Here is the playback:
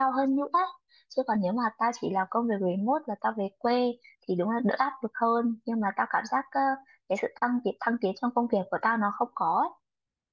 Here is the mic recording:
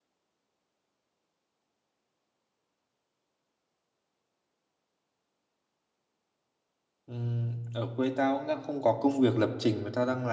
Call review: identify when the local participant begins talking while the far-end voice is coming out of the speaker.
7.1 s

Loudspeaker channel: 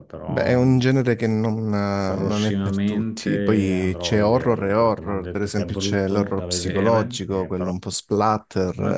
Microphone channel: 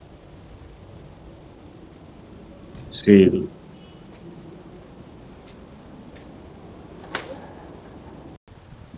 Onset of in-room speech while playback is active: 2.9 s

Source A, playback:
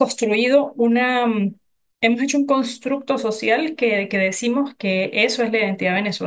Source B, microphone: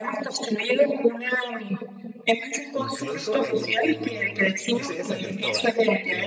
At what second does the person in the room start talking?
2.8 s

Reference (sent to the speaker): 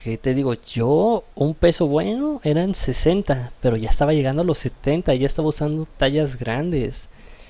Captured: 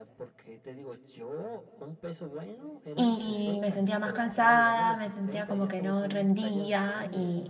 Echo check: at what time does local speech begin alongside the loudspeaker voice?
2.9 s

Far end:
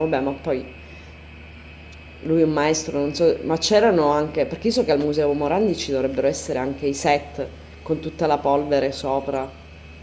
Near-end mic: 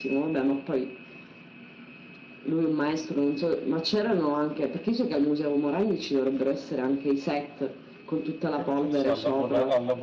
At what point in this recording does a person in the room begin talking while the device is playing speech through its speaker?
8.5 s

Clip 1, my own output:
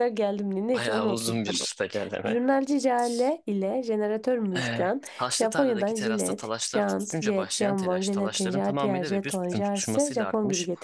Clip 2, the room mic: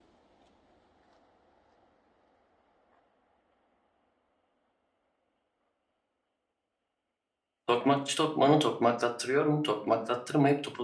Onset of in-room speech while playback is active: 7.7 s

